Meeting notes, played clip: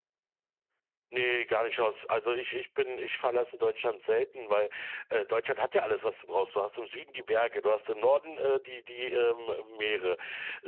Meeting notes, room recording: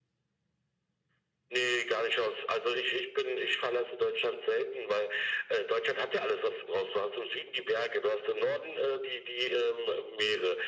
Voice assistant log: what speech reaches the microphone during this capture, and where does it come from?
echo only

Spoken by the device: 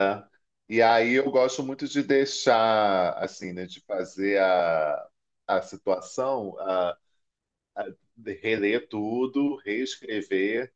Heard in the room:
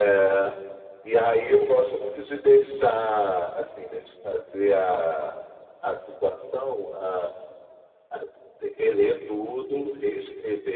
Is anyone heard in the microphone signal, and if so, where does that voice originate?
echo only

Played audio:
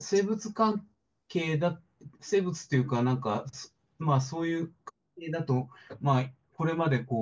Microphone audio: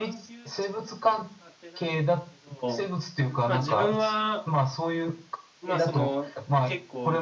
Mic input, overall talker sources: both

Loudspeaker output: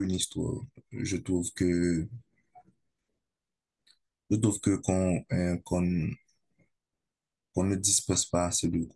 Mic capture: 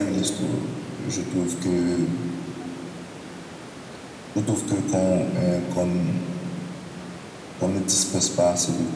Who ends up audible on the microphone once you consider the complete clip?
echo only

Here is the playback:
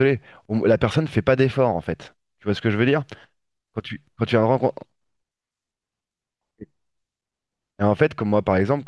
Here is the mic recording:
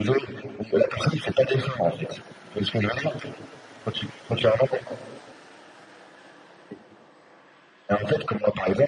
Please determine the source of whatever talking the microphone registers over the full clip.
echo only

